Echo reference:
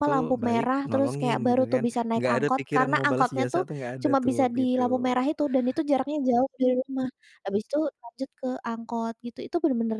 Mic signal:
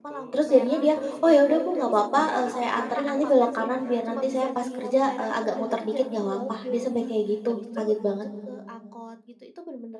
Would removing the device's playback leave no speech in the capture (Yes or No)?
No